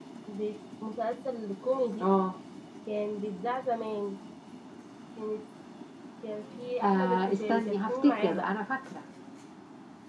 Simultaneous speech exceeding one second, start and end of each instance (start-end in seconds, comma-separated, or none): 6.8-8.6